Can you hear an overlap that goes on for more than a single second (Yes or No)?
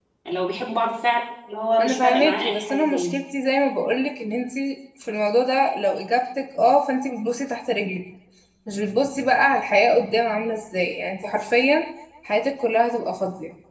Yes